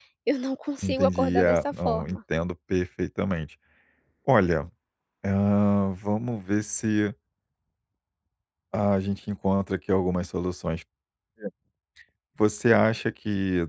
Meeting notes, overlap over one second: present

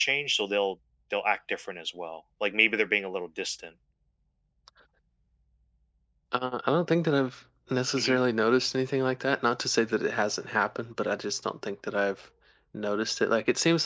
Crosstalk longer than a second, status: none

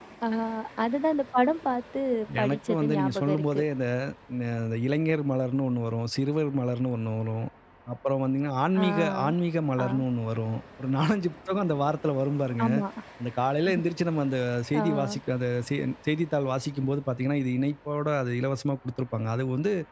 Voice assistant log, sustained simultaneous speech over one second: present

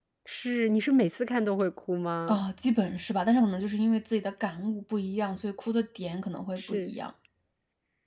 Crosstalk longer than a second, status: none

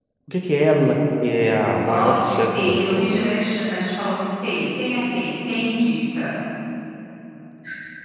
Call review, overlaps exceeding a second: present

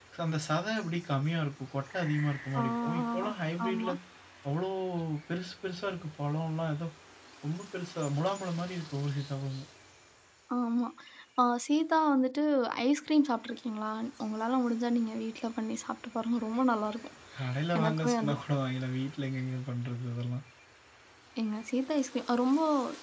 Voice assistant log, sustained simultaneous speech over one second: present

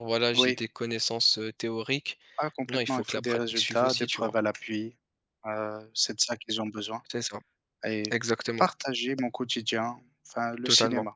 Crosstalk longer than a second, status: present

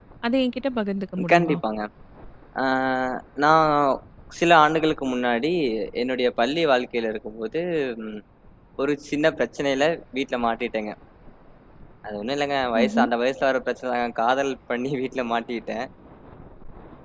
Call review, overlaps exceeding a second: none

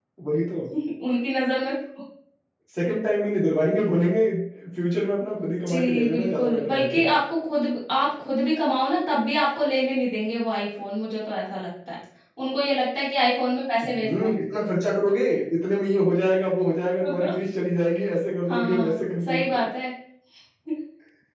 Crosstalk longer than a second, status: present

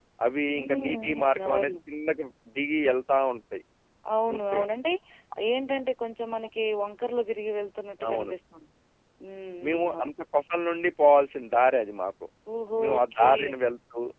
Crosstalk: present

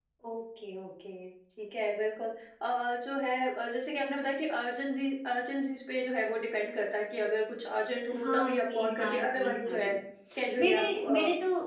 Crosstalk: present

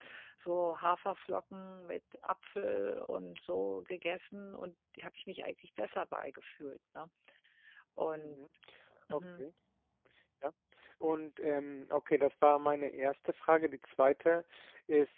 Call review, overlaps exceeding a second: none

